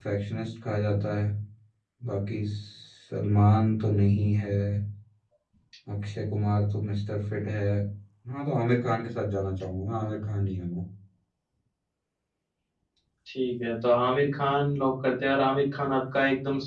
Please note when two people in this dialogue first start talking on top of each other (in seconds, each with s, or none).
none